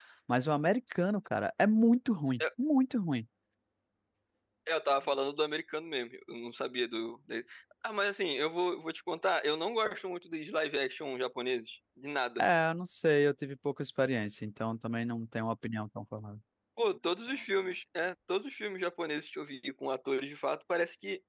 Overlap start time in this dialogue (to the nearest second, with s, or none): none